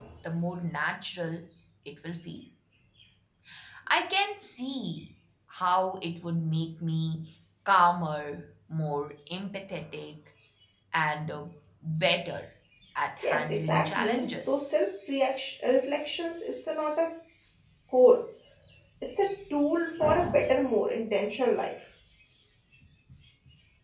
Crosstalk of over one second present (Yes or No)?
Yes